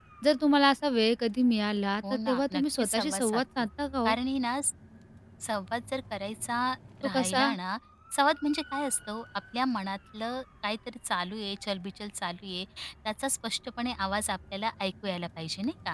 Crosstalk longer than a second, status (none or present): present